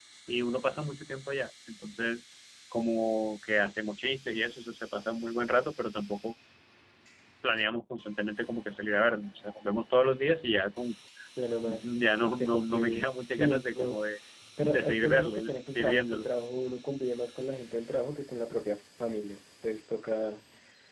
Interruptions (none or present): present